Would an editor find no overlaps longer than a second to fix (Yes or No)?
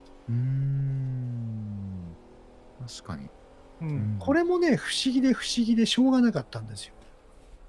Yes